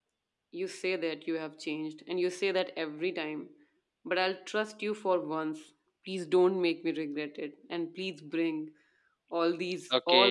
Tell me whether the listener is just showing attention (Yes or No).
No